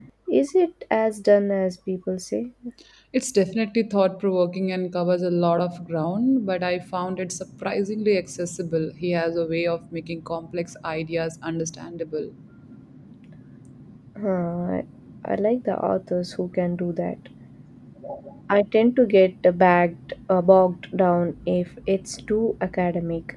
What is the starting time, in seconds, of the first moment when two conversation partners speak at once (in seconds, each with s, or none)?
none